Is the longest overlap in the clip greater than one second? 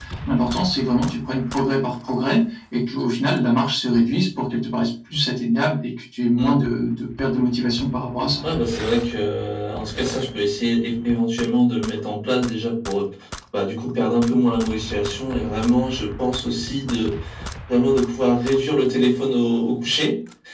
No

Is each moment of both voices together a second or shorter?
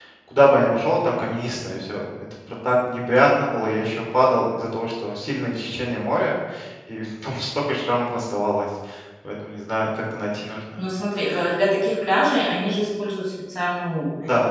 Yes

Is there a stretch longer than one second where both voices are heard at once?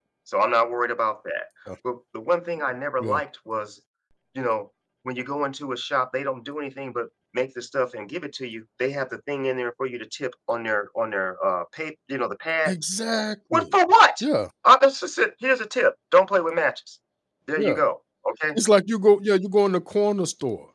No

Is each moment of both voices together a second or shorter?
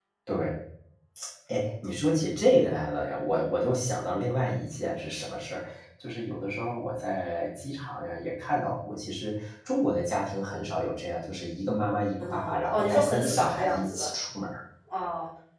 No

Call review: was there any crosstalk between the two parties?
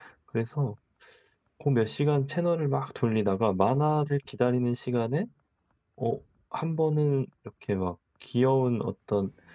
No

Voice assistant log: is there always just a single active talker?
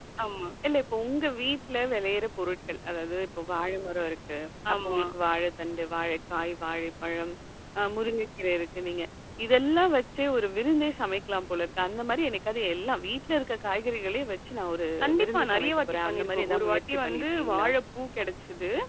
No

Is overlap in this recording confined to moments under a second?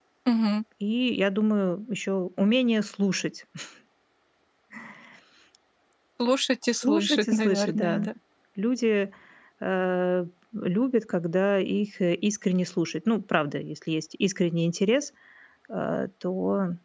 No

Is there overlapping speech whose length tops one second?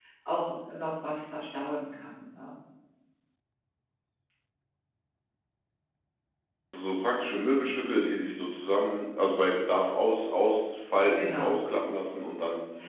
No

